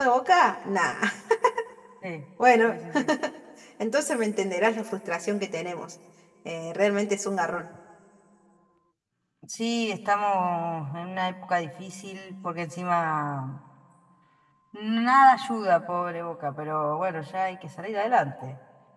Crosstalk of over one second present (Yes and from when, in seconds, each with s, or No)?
No